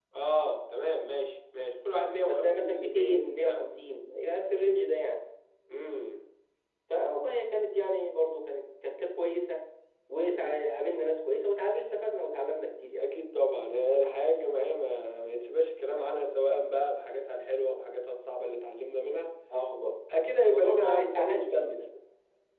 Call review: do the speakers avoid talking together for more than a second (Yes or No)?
No